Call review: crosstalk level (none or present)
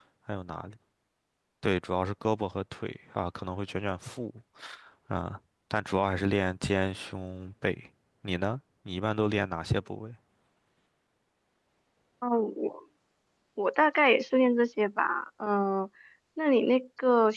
none